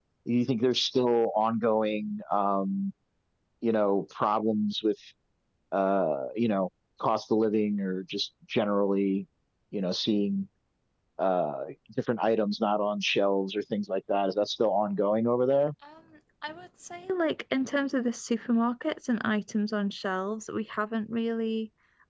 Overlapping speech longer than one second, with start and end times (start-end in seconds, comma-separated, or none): none